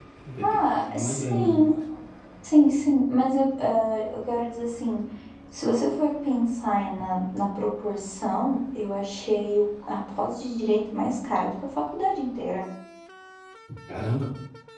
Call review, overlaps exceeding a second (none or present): present